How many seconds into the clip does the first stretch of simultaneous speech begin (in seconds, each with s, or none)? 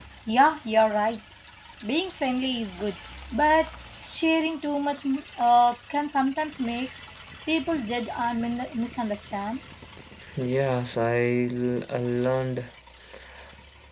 none